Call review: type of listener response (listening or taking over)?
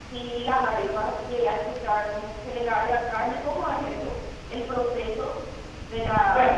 taking over